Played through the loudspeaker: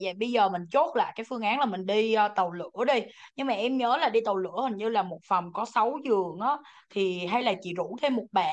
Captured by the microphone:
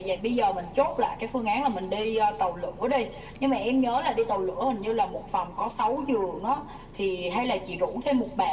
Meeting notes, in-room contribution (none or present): none